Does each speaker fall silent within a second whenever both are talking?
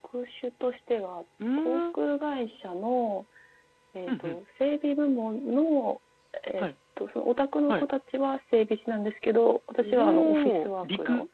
No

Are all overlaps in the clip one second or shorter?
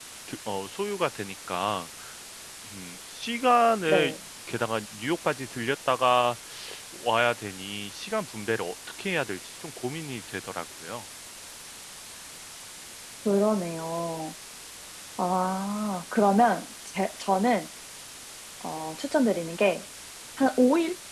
Yes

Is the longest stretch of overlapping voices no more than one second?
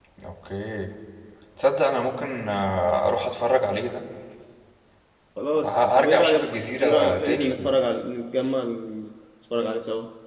No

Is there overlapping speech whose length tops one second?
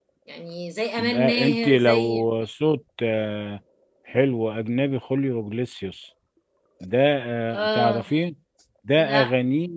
Yes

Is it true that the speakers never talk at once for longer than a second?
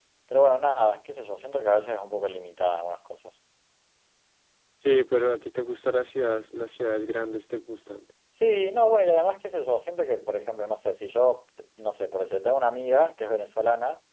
Yes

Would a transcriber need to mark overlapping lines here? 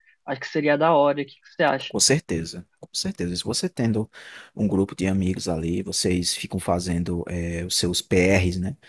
No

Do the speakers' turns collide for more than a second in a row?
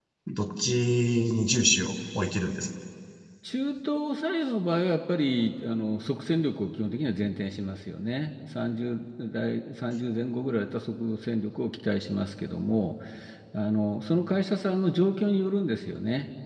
No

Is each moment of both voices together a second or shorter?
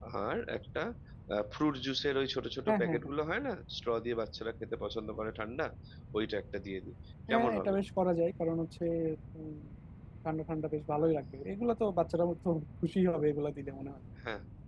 Yes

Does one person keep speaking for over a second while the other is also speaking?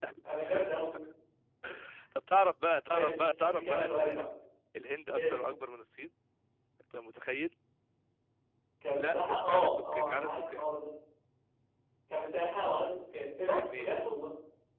Yes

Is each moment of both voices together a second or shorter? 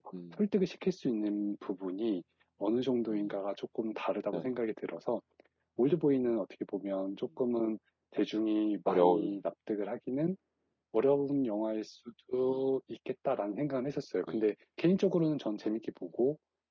Yes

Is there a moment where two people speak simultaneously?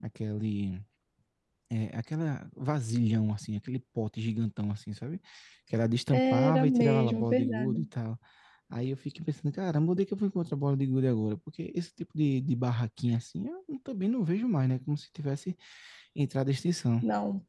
Yes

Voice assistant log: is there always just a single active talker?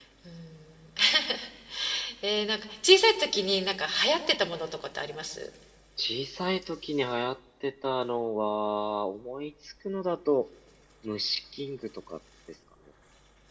Yes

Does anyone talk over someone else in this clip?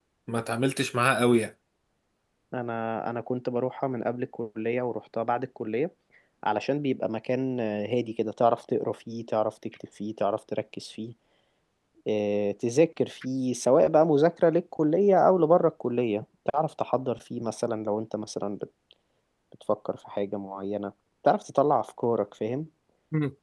No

